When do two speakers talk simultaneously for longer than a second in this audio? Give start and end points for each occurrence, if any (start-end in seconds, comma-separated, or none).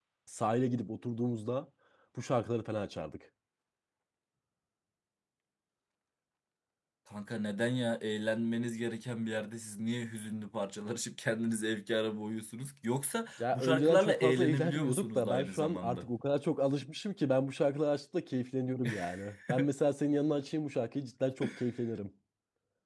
13.4-16.1